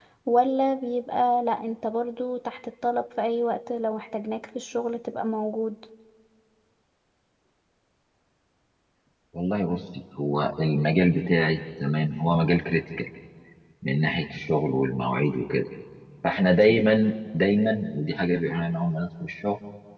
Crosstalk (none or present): none